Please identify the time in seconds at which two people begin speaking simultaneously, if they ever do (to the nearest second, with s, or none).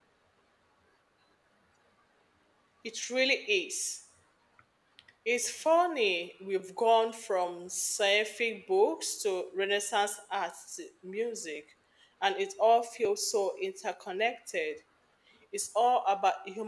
none